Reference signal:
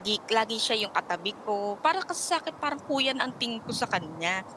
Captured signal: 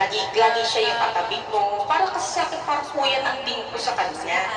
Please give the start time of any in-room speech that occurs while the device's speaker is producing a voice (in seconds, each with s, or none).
0.3 s